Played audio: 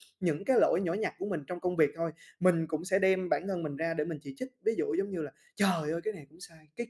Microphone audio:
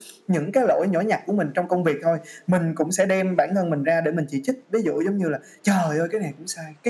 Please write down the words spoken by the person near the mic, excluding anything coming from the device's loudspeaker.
none

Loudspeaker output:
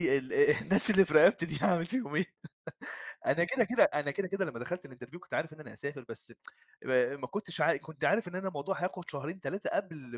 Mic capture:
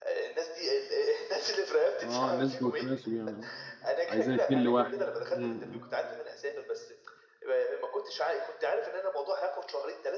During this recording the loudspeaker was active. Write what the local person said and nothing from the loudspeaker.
آه نسبة وتناسب يعني آه، عايزين 2 ل1، إمم، إمم.

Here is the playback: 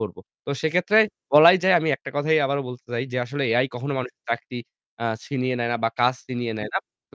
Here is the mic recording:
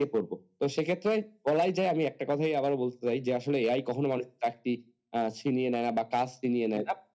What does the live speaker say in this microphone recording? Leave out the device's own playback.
none

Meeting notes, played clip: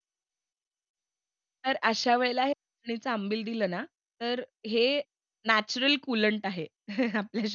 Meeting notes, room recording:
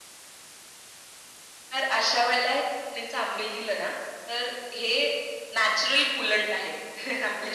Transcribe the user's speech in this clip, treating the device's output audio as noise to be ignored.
none

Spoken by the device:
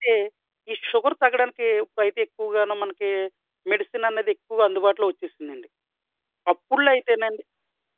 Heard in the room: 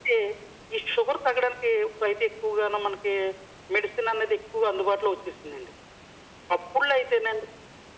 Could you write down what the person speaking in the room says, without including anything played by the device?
none

